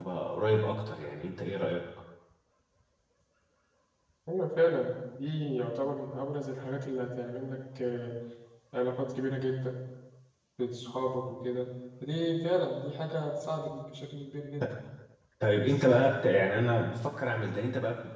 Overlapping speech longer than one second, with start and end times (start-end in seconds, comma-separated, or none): none